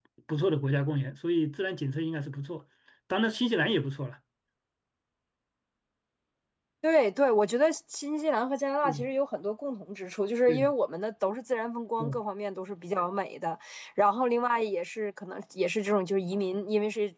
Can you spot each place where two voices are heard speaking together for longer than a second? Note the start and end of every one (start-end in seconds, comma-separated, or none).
none